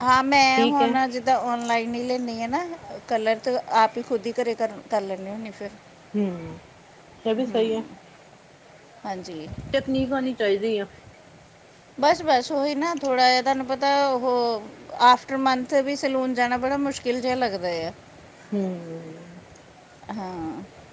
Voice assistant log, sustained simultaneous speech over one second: none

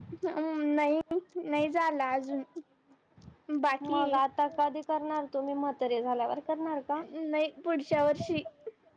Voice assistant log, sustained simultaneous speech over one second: none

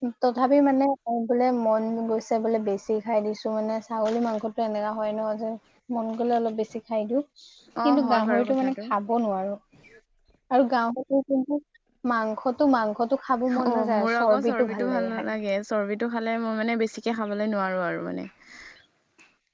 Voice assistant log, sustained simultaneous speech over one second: present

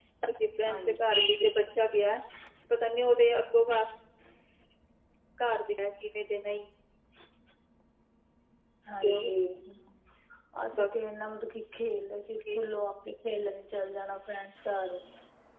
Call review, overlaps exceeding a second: none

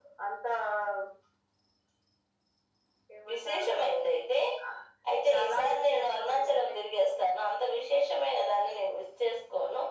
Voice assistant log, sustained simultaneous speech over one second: present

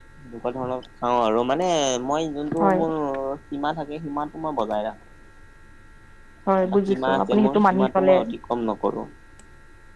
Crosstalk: present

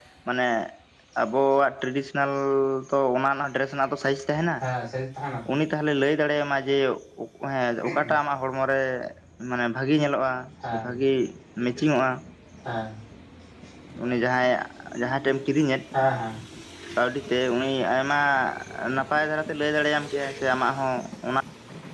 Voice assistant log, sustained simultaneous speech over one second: none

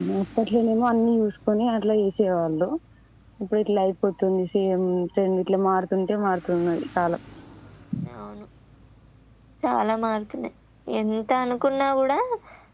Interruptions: none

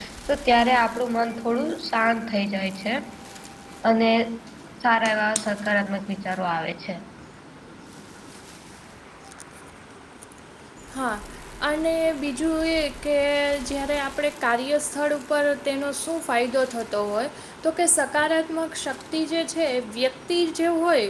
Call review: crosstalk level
none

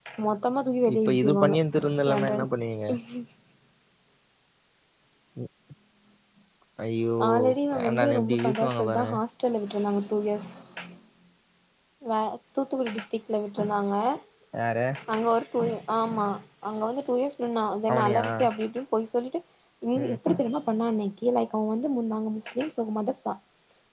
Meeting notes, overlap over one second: present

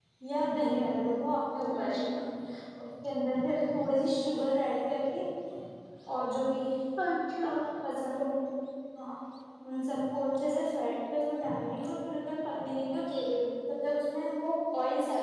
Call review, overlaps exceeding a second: none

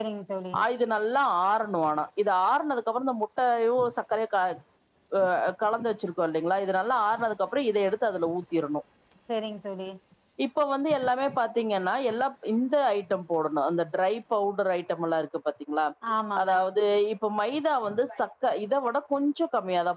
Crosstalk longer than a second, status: none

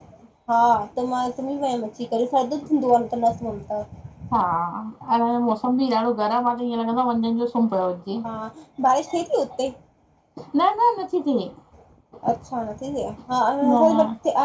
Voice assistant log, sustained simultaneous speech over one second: none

